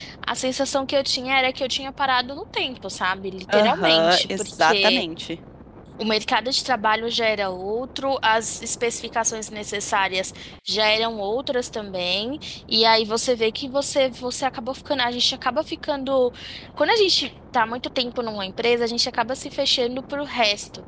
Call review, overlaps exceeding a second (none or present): present